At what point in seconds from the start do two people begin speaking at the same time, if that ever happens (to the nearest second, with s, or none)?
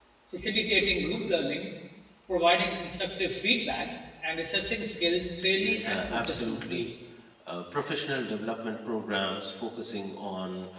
6 s